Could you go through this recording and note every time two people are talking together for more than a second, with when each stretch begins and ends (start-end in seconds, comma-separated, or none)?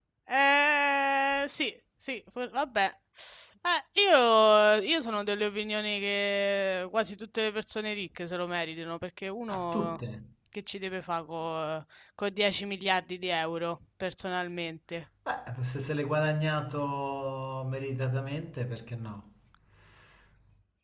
none